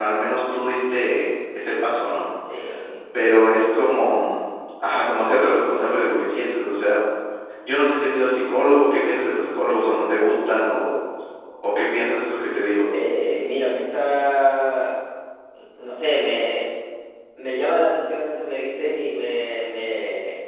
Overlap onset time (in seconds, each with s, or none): none